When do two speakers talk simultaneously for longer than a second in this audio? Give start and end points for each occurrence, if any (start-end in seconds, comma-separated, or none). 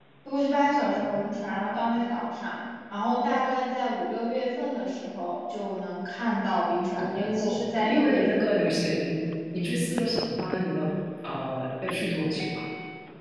6.9-8.7